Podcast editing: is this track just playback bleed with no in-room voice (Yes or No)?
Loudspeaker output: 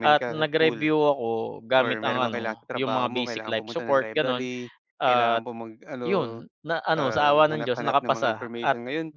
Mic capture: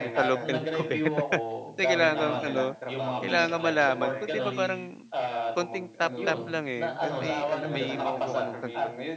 No